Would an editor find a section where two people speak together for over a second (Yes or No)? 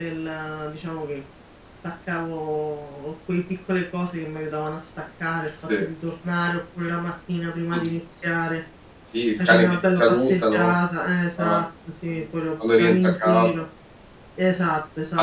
Yes